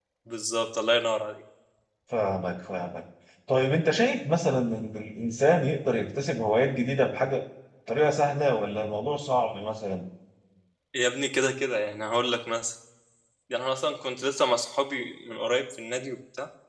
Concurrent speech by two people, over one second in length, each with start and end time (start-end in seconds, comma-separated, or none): none